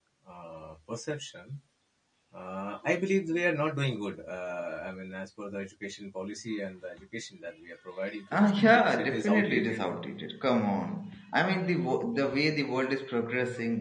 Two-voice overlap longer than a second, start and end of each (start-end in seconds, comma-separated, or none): 8.3-9.8